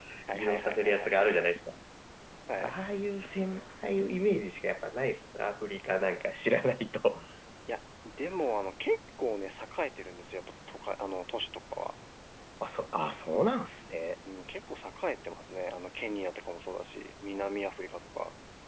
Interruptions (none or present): present